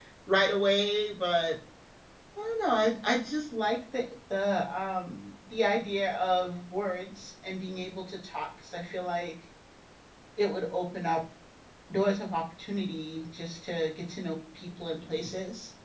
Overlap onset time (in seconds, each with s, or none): none